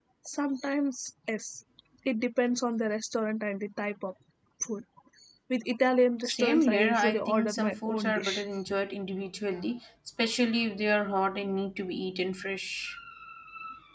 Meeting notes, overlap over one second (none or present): present